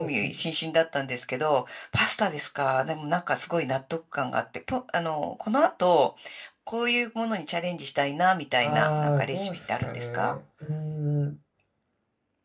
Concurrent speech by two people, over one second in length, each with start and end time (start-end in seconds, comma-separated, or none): 8.6-10.3